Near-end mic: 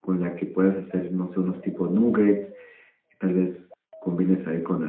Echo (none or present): none